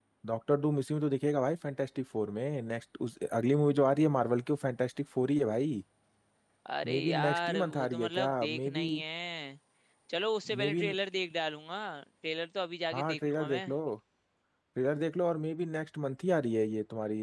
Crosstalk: present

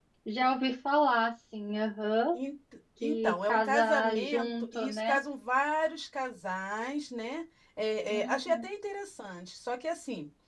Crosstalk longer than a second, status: present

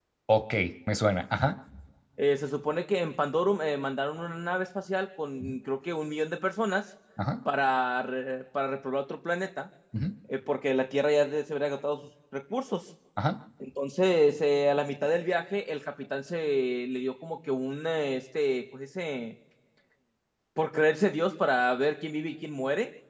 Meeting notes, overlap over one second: none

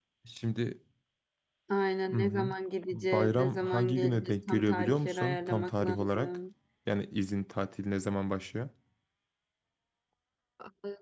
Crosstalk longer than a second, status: present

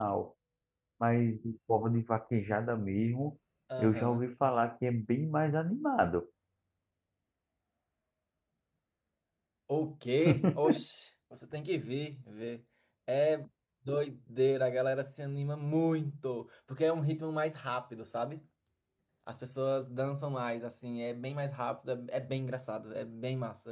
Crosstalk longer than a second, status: none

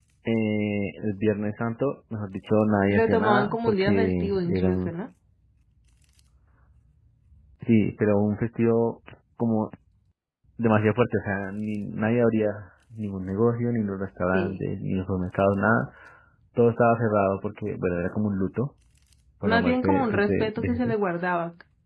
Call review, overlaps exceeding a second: present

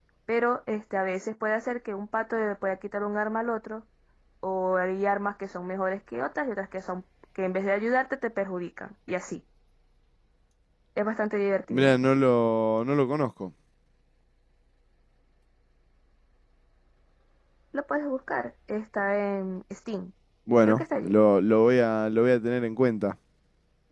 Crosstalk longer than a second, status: none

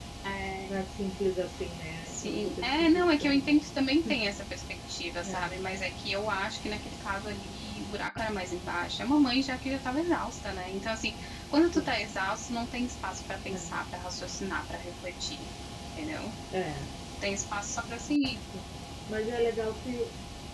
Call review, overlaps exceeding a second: present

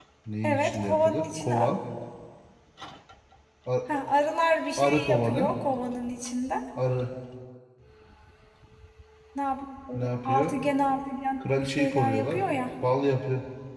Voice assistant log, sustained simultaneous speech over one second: present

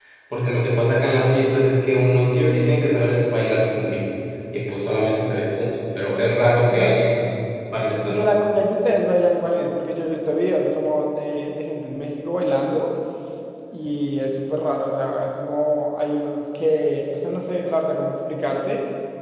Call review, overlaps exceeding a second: none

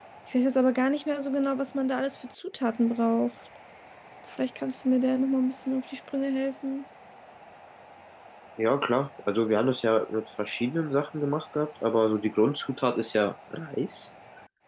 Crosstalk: none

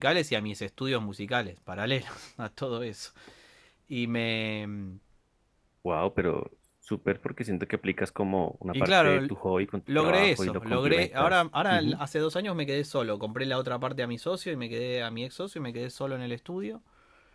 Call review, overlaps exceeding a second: present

